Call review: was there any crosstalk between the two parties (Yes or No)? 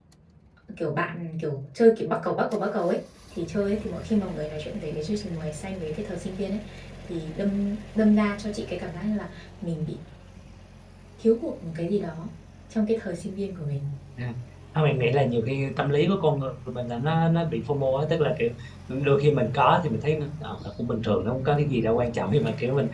No